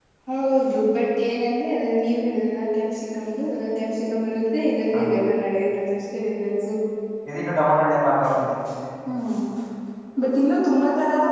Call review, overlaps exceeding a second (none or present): none